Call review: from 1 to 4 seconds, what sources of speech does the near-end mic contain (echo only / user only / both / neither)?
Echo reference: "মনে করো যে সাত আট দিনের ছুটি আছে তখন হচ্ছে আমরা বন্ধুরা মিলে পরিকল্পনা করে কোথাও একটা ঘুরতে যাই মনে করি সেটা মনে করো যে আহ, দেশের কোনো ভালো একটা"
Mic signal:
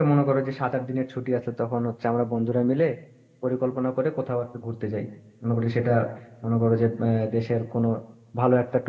echo only